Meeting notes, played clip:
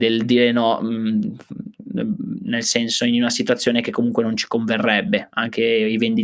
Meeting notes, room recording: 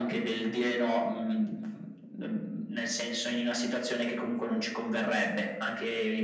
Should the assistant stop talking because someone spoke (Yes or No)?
No